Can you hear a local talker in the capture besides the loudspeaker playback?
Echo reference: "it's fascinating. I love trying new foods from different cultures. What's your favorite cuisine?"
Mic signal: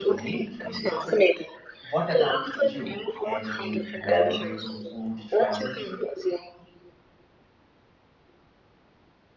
Yes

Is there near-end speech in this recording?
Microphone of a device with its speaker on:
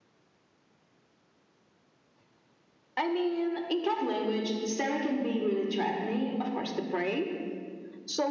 No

